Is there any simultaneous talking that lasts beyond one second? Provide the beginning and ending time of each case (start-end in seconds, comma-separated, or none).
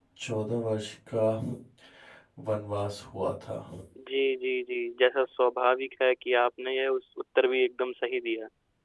none